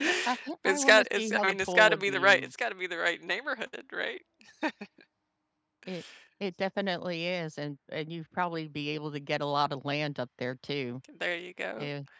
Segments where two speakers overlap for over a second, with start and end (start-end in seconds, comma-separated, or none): 0.6-2.5